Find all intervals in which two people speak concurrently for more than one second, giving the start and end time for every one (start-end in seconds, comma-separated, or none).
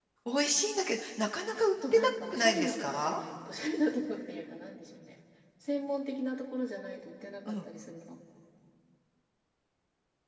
1.6-3.2